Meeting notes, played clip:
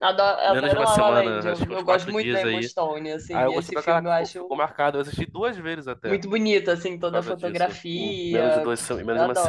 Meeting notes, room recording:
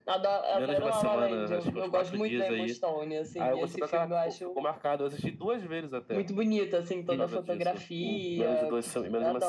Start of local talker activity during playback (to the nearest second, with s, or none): 7 s